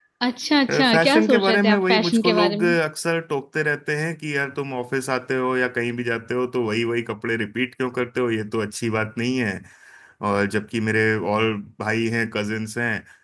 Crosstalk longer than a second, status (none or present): present